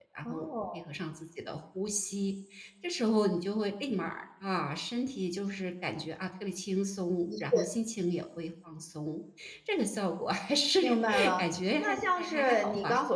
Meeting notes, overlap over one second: present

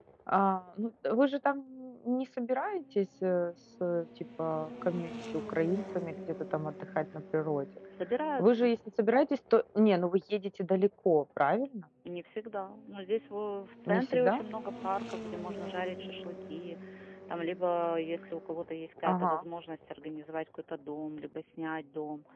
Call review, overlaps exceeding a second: none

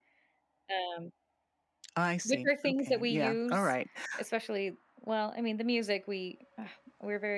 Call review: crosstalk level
present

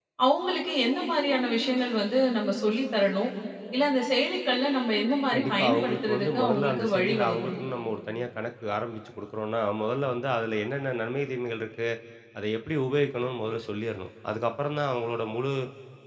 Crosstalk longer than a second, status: present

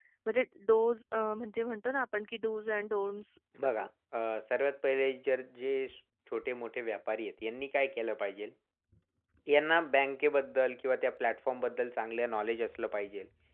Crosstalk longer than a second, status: none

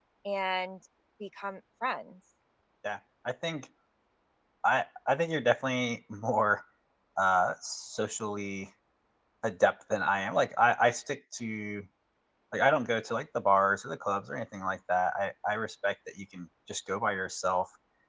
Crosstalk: none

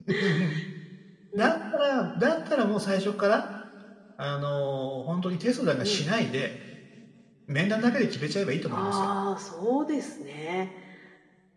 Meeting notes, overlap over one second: none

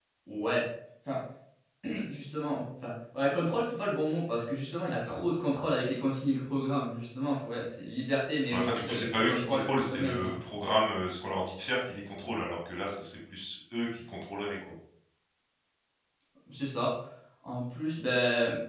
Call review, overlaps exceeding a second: present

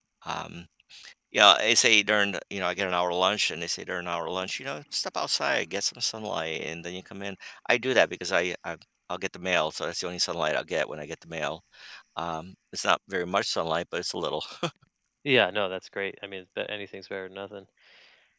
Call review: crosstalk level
none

